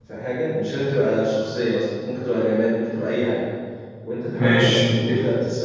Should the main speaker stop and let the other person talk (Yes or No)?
No